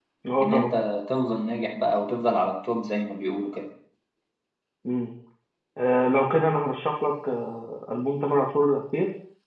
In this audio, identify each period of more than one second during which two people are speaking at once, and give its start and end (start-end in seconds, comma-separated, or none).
none